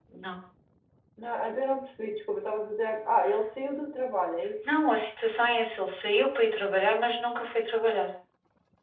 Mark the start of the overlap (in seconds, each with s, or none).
none